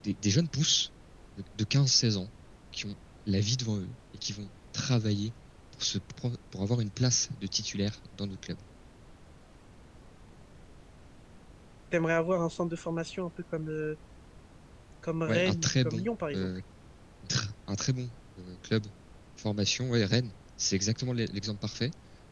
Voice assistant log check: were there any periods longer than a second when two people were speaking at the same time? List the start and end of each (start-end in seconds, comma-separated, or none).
15.3-16.5